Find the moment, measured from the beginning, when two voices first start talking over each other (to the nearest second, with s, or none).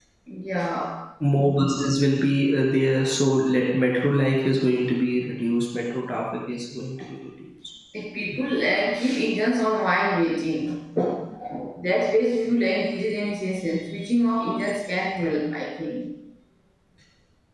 none